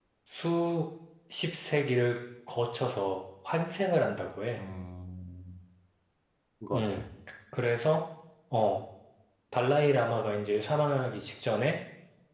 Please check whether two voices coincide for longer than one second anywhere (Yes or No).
No